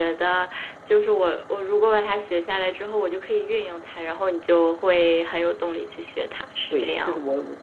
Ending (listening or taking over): taking over